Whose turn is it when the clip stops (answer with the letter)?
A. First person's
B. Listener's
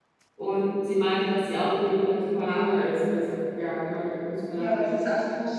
B